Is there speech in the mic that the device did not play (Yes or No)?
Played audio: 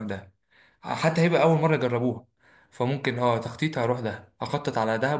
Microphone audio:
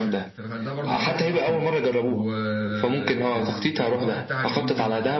Yes